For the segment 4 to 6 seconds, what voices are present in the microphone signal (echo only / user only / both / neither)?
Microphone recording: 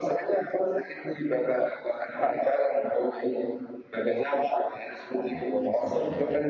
both